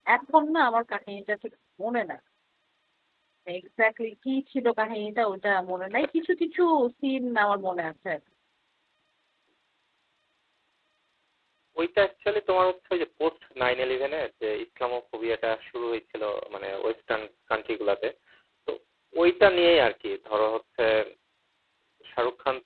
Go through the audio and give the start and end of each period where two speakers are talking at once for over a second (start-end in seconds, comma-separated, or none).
none